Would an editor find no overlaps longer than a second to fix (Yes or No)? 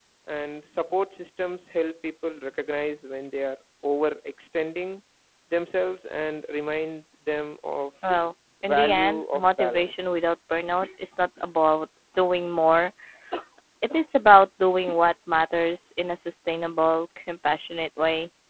No